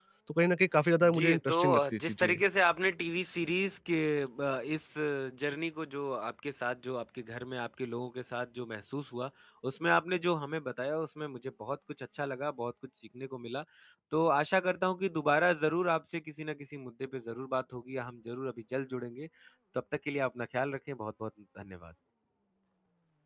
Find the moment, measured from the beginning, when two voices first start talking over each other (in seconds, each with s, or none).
1.1 s